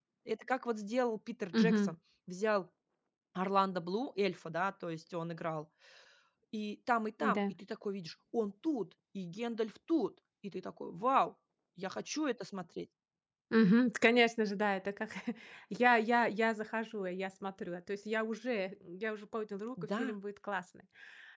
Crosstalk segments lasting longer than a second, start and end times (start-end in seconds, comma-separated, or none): none